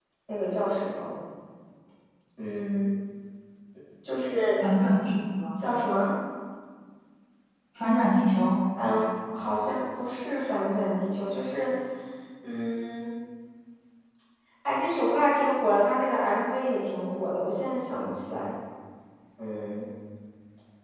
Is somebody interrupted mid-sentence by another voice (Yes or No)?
No